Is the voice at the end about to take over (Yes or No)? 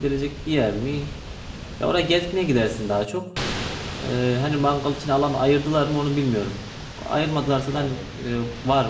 No